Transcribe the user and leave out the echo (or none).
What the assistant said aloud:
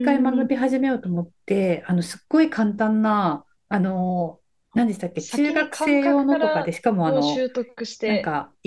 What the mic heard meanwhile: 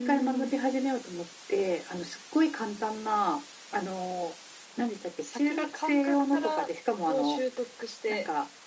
none